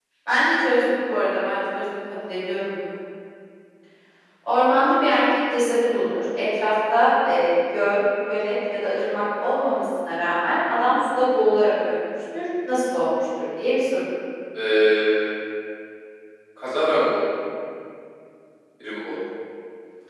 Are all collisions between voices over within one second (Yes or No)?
Yes